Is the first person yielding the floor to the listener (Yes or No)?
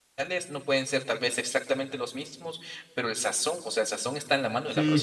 Yes